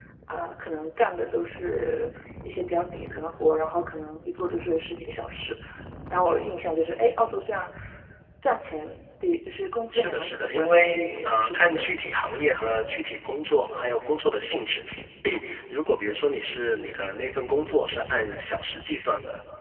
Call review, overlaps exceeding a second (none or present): present